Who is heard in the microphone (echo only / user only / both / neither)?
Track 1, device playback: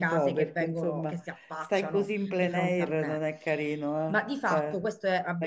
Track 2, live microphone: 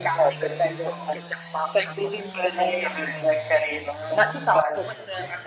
echo only